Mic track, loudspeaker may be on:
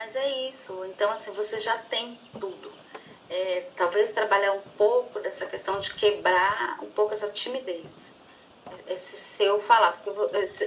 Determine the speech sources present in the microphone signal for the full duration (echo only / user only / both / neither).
echo only